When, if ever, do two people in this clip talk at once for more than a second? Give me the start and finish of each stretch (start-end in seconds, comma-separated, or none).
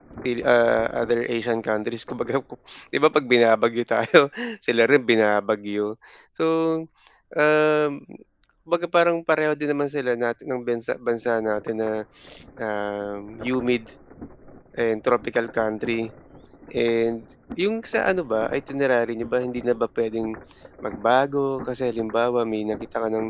none